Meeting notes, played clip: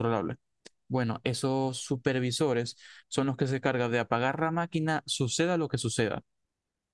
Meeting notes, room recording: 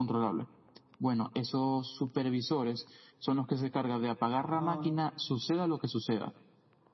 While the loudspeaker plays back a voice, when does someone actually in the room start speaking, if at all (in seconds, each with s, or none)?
4.3 s